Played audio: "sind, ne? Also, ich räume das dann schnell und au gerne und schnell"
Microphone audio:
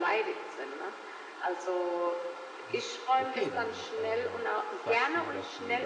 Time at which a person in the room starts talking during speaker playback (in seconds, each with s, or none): 2.6 s